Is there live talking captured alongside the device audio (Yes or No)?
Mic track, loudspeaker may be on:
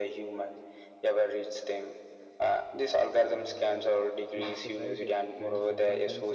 Yes